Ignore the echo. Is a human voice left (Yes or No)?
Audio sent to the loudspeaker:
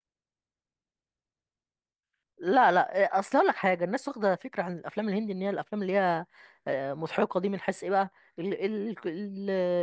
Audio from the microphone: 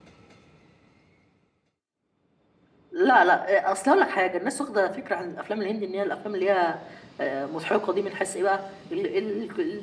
No